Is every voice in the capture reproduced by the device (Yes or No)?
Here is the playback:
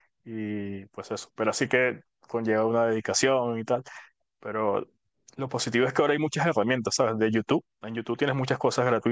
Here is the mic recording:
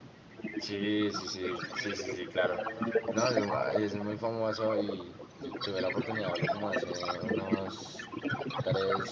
No